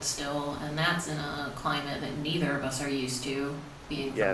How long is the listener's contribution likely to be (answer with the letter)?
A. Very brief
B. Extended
B